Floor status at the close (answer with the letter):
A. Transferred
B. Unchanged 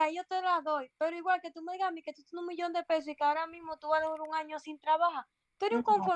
B